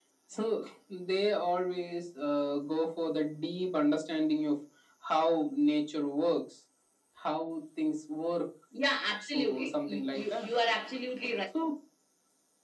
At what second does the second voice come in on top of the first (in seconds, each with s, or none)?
9.2 s